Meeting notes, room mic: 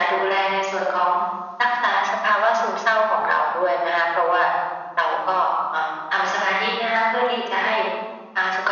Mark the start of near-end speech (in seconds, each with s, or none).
none